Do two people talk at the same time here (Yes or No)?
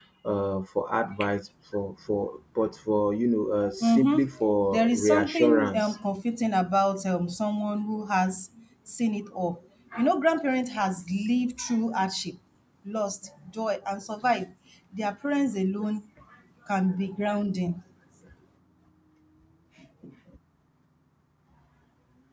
Yes